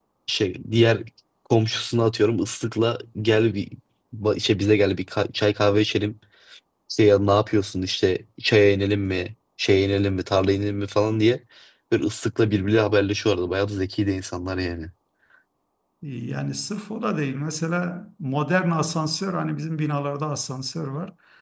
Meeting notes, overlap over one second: none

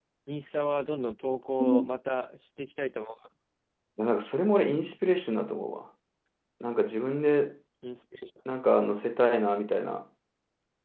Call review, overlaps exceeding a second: none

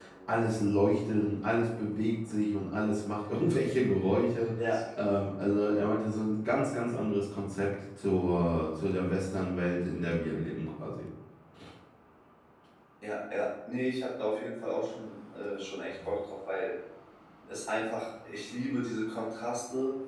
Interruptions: none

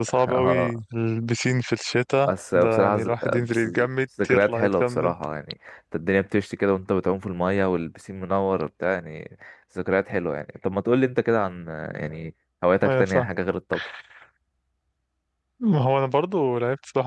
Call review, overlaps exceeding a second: present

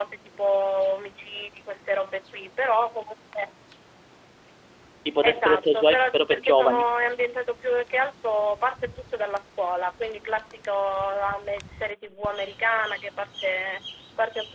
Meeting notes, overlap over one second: present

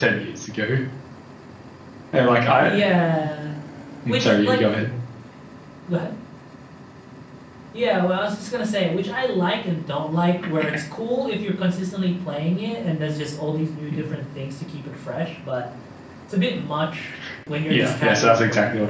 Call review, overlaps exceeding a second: present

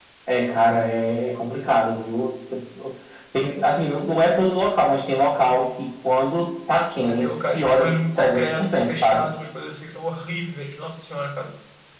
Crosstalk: present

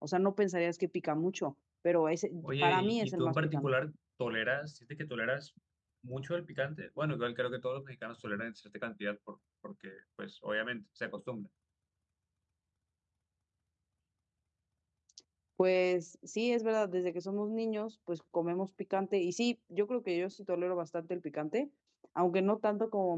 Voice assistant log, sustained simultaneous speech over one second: present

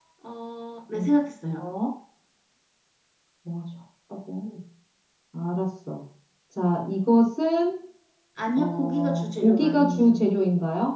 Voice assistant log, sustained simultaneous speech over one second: present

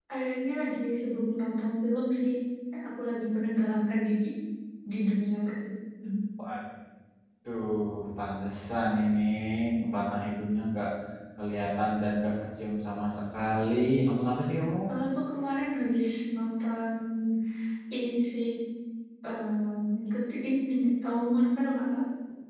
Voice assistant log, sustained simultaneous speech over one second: none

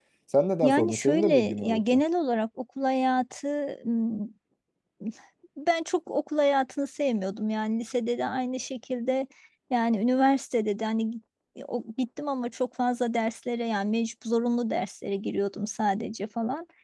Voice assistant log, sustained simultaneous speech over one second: present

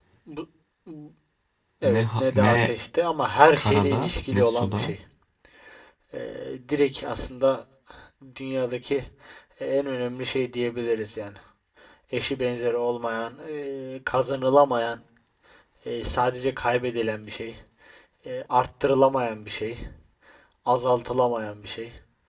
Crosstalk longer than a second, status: present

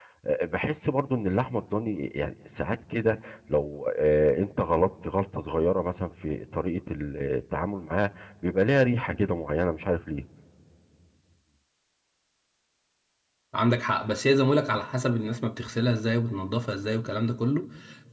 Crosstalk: none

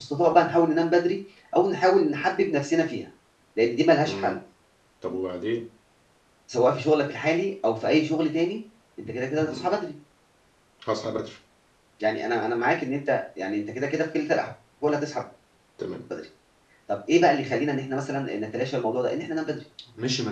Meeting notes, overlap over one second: none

